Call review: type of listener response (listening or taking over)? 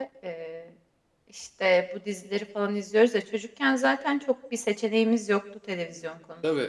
taking over